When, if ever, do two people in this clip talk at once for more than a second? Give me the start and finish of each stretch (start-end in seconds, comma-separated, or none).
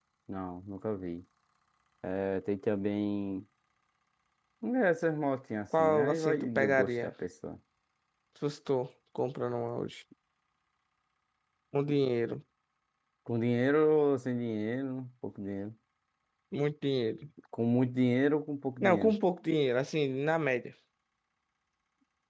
5.8-7.1